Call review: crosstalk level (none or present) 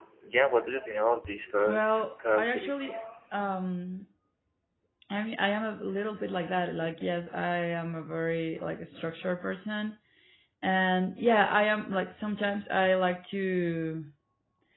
present